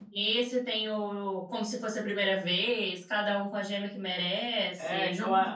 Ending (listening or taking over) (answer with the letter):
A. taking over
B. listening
A